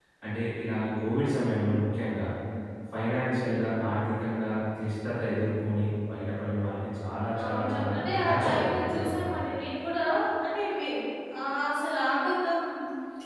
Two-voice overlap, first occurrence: 7.0 s

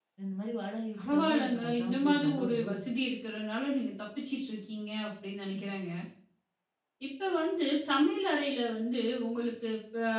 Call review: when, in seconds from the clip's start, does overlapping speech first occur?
1.0 s

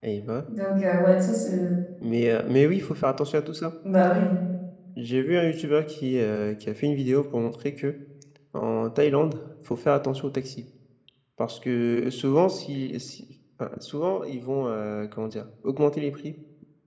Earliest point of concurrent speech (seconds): none

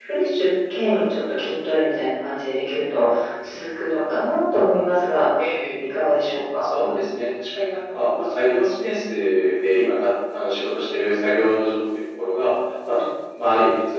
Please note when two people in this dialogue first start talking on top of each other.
none

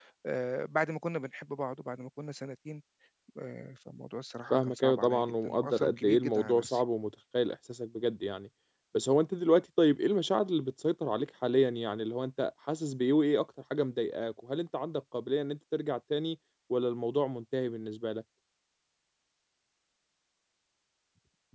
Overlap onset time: 4.5 s

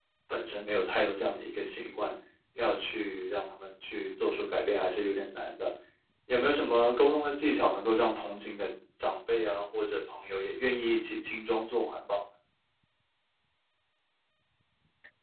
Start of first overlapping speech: none

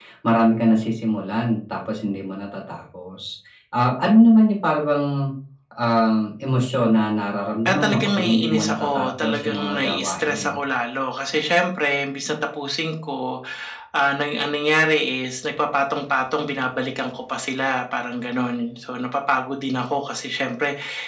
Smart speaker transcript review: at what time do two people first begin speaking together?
7.7 s

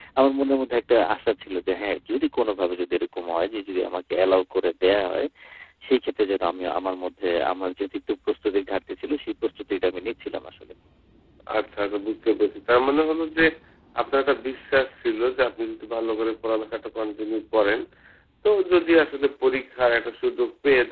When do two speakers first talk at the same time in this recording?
none

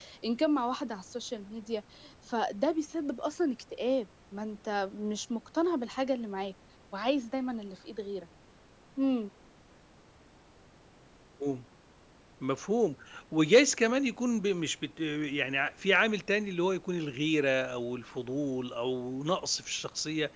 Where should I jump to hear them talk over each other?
none

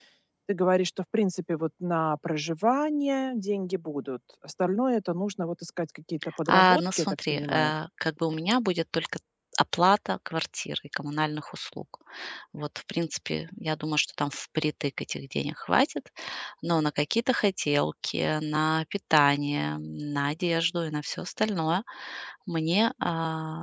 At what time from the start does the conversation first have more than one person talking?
6.4 s

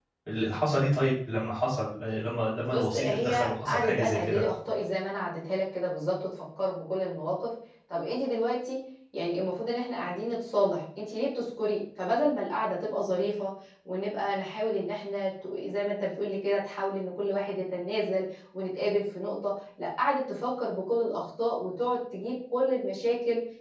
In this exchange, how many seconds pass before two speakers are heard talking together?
2.7 s

